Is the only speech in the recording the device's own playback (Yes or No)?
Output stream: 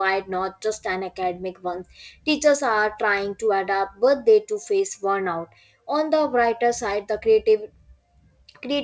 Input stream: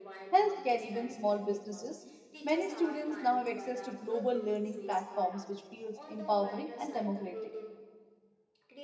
No